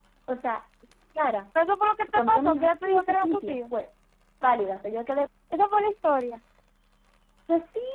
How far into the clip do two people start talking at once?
2.1 s

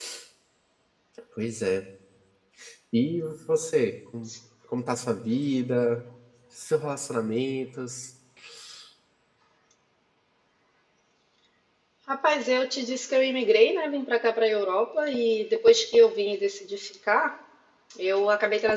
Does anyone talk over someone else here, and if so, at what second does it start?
none

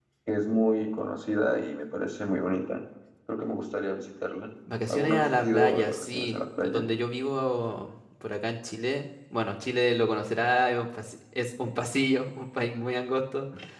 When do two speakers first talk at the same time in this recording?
4.7 s

